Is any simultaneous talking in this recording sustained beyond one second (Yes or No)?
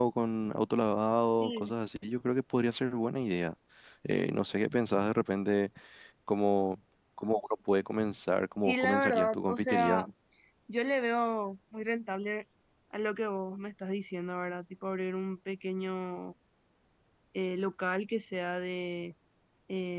Yes